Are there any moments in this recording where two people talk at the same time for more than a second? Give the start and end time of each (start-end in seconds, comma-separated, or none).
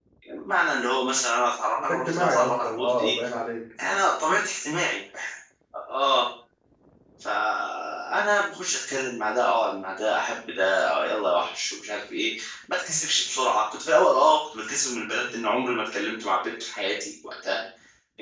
1.9-3.1